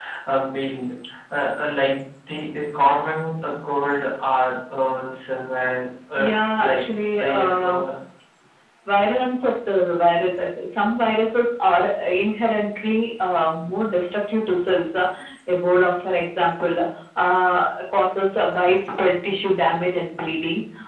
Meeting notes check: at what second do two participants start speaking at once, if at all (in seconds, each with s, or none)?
6.2 s